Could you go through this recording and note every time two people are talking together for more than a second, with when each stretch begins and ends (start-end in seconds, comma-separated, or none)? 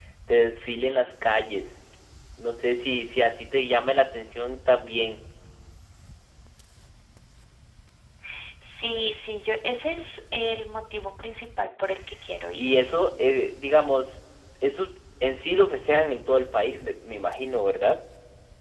none